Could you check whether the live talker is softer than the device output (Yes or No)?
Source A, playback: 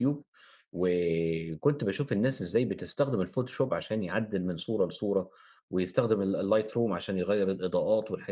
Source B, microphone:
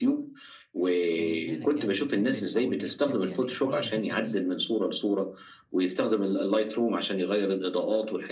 Yes